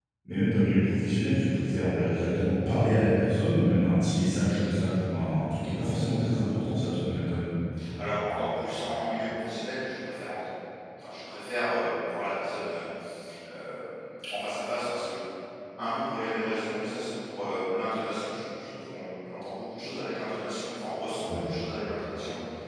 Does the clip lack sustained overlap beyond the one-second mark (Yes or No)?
Yes